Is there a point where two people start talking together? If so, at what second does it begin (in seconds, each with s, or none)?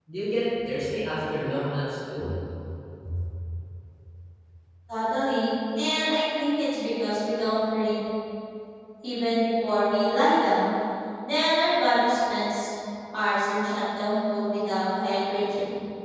none